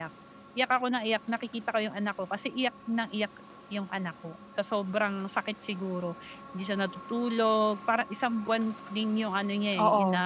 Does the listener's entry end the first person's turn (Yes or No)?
No